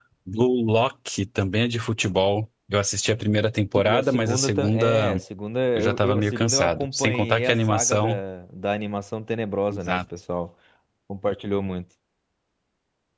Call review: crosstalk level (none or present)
present